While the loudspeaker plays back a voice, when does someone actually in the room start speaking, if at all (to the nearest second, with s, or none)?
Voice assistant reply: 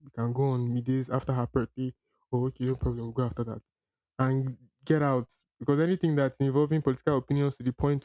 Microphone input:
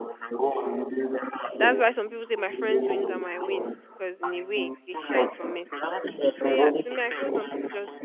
2 s